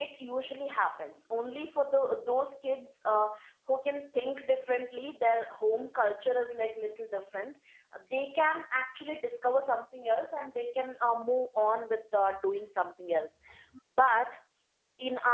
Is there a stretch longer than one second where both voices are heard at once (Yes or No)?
No